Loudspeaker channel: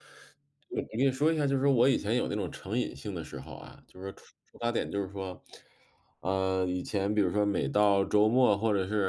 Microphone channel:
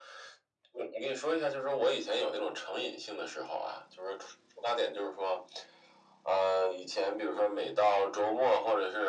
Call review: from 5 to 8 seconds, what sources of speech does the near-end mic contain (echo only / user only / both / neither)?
echo only